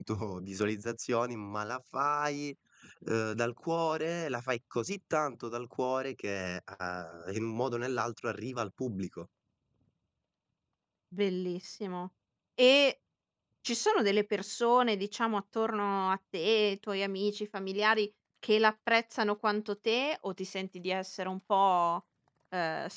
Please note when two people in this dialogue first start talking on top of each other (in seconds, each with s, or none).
none